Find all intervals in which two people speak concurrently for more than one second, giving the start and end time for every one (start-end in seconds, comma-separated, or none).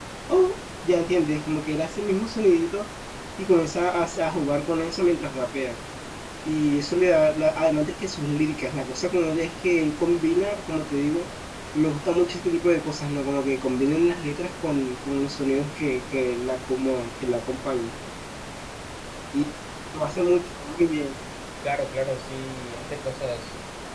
none